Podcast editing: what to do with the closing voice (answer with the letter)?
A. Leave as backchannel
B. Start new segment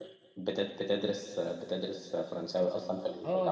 B